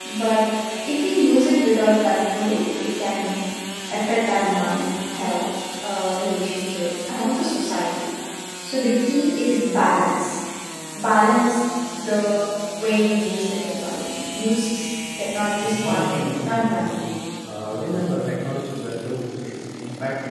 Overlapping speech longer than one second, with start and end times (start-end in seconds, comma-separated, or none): 15.6-16.9